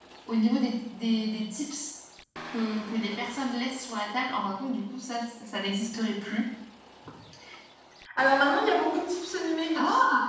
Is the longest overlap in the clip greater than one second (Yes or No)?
No